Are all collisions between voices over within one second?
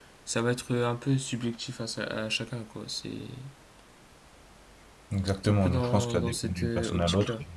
No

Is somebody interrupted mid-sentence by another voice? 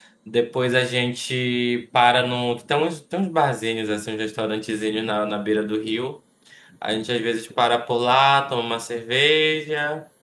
No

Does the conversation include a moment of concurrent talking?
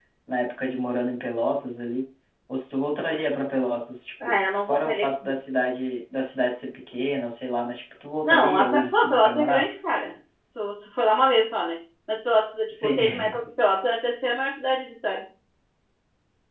Yes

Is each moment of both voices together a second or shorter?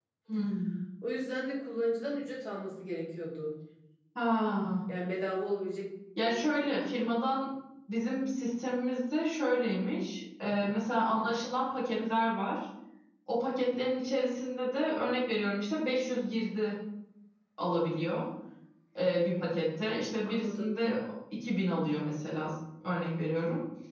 Yes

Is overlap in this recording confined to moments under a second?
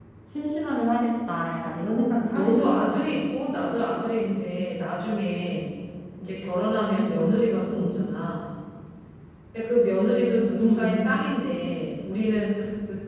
No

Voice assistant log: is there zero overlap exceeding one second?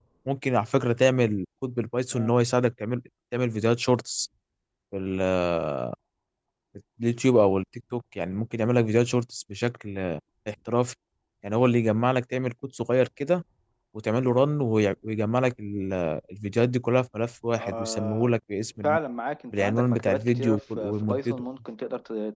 No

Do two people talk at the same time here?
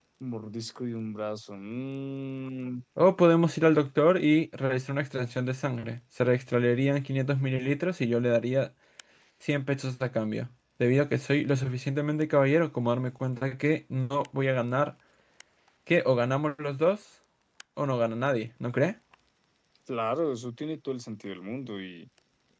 No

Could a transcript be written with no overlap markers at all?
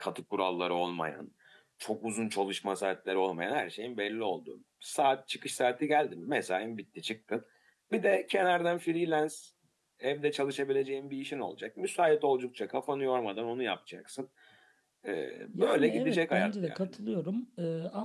No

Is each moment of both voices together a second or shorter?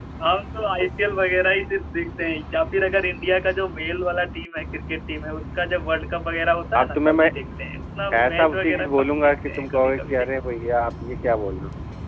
No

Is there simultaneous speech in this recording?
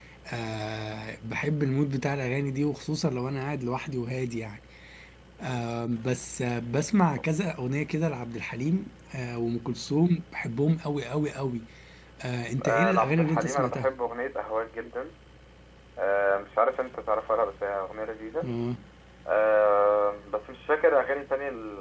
Yes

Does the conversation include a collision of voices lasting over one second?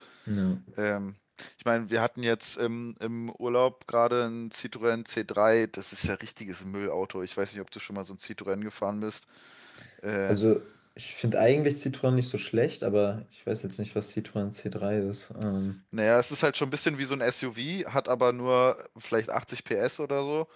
No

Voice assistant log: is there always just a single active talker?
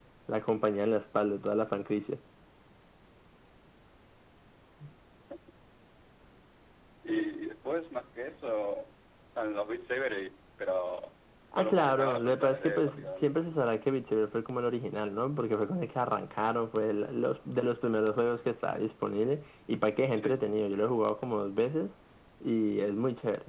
No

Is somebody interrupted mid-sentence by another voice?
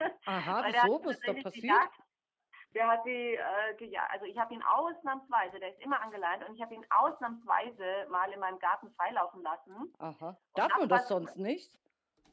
Yes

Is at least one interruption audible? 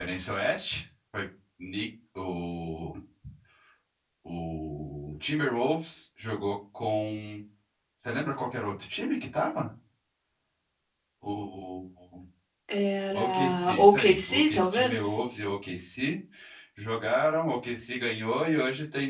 Yes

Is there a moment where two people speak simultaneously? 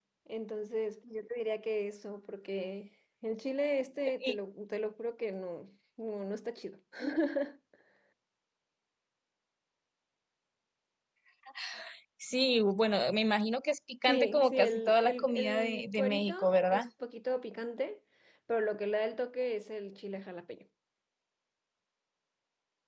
Yes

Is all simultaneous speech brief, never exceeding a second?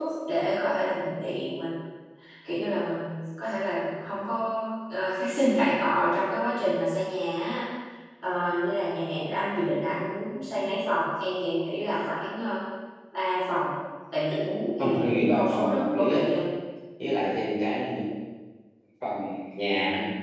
No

